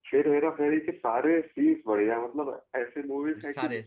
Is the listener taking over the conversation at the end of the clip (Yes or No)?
No